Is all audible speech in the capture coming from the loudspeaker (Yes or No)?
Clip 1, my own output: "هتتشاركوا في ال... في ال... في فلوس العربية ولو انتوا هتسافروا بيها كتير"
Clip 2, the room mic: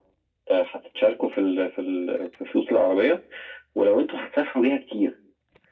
Yes